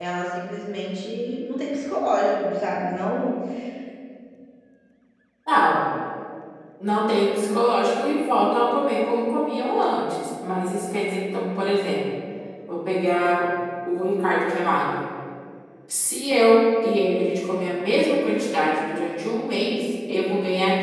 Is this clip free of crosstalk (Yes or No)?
Yes